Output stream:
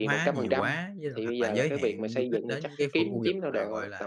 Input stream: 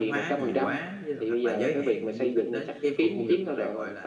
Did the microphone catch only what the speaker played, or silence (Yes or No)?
Yes